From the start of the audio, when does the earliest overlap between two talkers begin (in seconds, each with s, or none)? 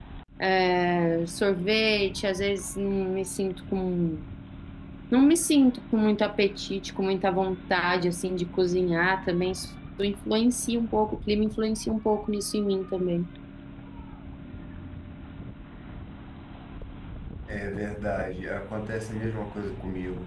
none